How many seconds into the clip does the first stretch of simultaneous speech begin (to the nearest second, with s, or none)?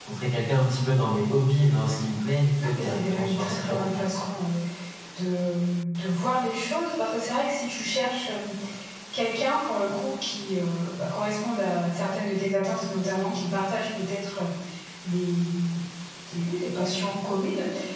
3 s